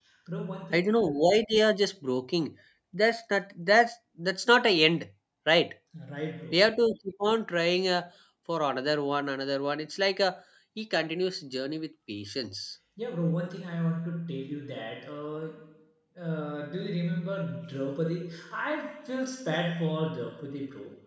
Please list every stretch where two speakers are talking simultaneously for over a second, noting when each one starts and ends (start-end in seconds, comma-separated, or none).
none